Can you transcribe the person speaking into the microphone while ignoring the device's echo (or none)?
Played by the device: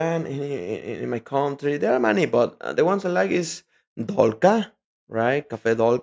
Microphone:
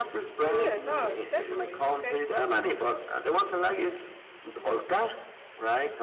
Oh yeah, nah, definitely. Okay.